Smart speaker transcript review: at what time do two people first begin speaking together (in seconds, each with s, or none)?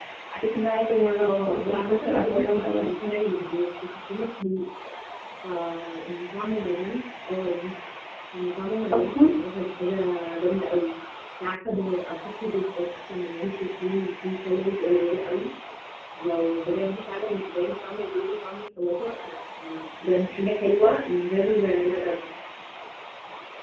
1.2 s